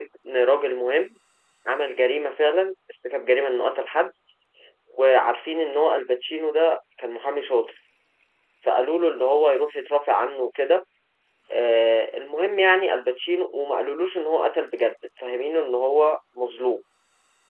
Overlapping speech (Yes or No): No